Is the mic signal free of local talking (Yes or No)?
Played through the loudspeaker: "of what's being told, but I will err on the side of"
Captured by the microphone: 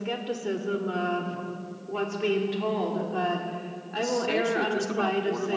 No